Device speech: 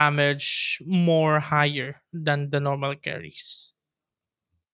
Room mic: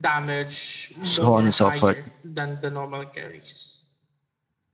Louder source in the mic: user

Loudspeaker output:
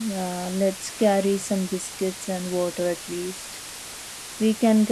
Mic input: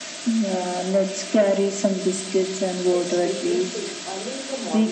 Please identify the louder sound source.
echo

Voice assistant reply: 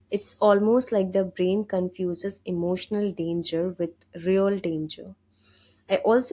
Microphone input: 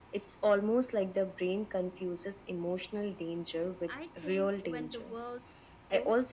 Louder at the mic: echo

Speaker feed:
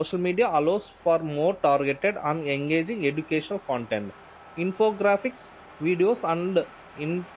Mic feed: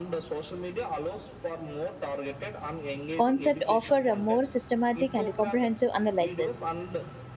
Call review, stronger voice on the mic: user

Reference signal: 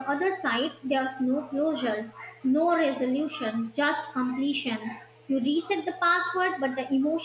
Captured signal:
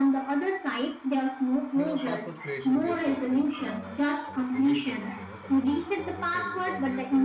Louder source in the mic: echo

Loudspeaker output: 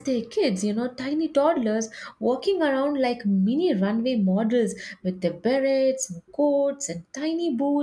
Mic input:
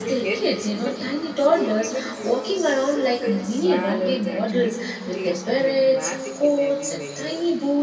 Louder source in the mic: echo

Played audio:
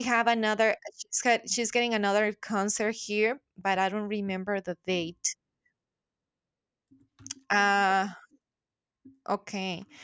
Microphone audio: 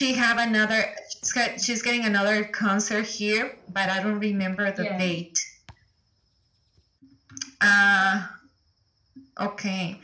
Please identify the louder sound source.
echo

